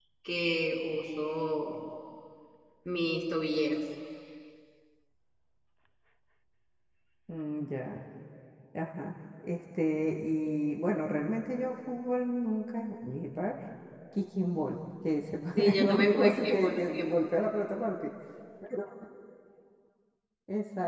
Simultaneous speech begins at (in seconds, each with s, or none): 15.6 s